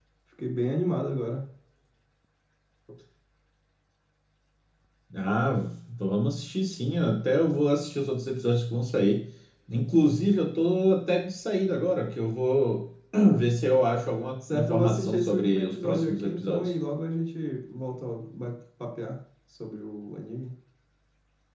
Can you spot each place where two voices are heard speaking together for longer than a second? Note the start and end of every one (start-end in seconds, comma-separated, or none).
14.5-16.7